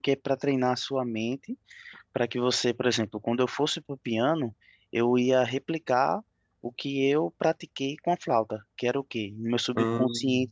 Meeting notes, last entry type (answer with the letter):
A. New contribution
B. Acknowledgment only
B